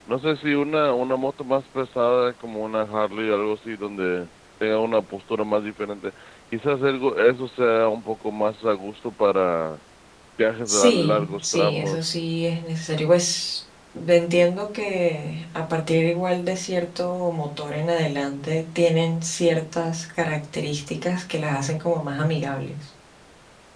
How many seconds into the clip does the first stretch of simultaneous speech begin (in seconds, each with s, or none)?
10.7 s